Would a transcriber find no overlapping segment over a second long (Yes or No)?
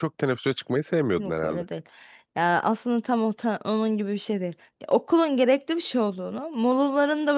Yes